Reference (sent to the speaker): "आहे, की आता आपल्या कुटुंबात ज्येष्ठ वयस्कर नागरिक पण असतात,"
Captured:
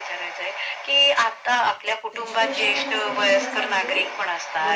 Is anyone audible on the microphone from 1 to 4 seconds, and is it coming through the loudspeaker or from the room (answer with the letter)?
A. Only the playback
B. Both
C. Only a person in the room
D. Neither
B